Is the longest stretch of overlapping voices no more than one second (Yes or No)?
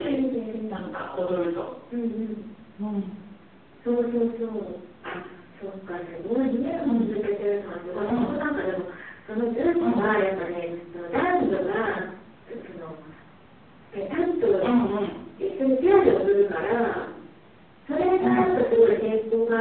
Yes